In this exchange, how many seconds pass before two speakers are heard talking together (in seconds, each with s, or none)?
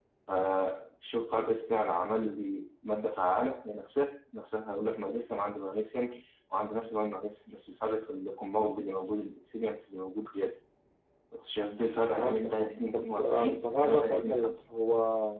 12.1 s